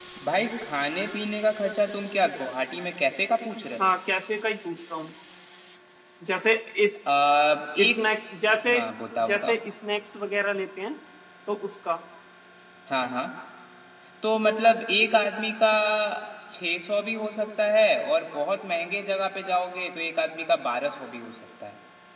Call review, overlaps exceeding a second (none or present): none